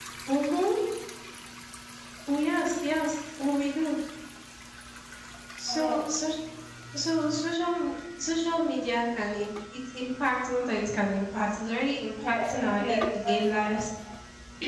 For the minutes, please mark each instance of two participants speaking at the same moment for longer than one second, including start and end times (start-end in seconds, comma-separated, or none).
12.3-13.6